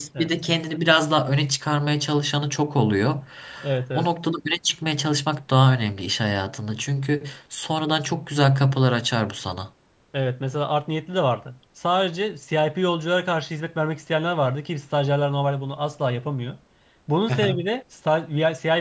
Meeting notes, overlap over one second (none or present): none